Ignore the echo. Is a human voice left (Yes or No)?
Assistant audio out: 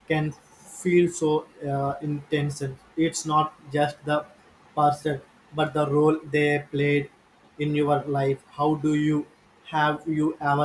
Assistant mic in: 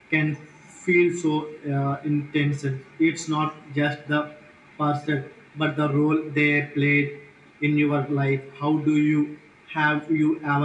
No